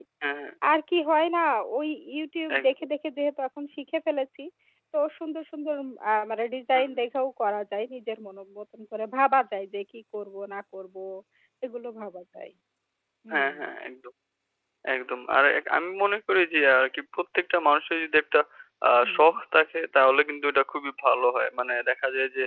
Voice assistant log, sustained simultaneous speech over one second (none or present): none